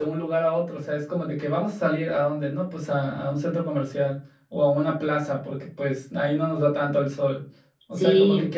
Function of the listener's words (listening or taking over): listening